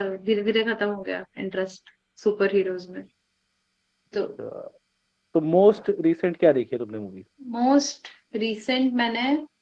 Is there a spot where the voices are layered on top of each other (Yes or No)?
No